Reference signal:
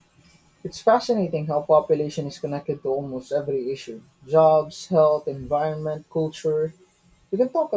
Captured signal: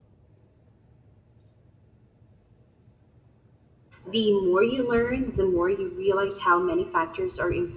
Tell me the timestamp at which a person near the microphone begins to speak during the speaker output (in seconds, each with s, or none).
4.1 s